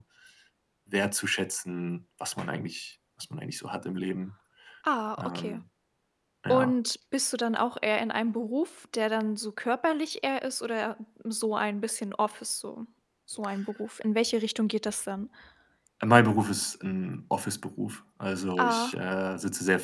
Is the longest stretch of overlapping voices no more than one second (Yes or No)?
Yes